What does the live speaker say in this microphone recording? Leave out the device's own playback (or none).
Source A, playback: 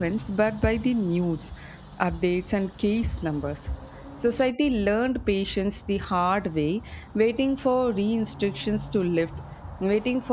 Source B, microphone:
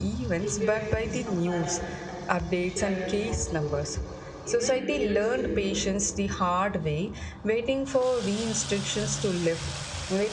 preparedness, compassion, and shared responsibility. Even years later,